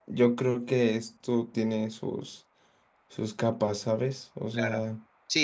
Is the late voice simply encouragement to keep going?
No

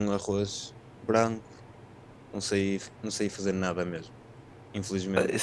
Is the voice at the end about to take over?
Yes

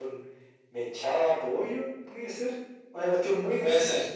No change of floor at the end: Yes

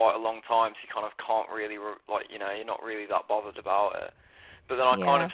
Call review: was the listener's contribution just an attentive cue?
Yes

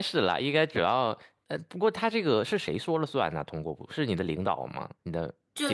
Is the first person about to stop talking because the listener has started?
Yes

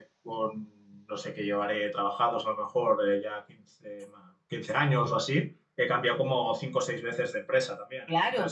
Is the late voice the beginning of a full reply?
Yes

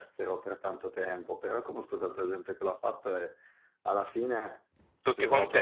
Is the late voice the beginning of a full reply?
No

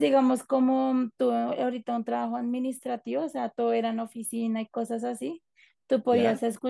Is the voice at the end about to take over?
No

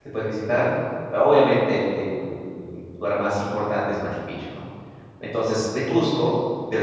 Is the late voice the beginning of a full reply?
No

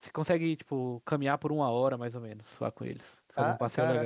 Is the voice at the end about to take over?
Yes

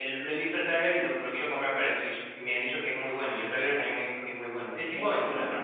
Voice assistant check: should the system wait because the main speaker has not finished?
No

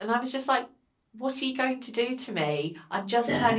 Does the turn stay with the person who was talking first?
Yes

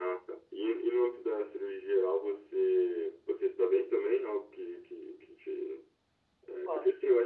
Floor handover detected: No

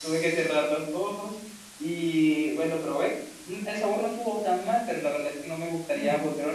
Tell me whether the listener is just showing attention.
Yes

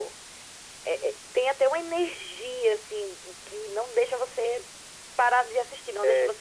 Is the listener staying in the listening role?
Yes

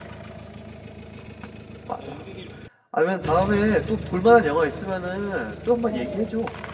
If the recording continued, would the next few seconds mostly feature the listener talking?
Yes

